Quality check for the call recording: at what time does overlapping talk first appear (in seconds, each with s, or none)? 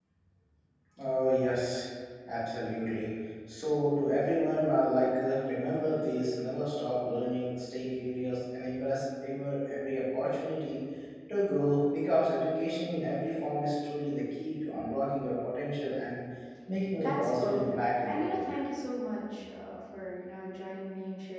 17.0 s